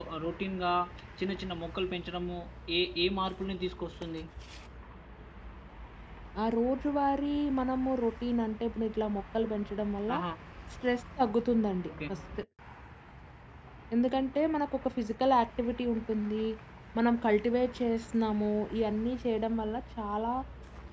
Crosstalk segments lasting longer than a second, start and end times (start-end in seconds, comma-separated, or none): none